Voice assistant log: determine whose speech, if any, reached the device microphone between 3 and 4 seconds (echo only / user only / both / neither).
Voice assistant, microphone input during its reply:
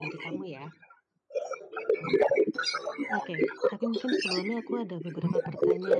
both